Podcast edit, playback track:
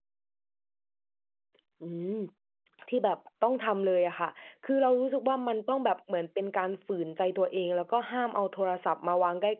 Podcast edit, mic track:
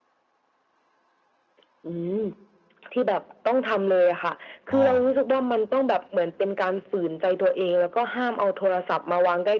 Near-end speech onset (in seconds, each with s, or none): 4.7 s